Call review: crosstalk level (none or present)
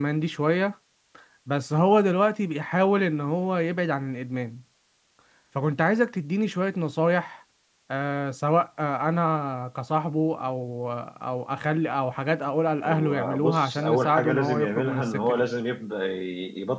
present